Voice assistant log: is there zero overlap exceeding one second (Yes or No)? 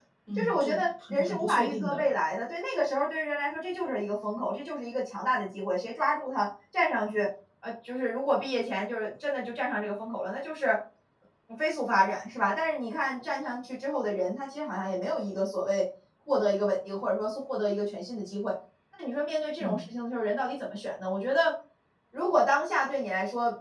No